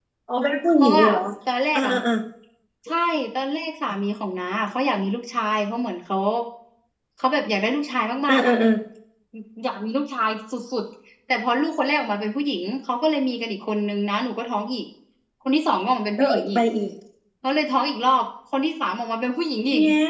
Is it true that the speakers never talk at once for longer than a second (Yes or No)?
Yes